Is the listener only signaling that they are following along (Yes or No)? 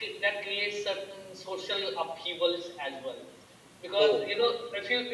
Yes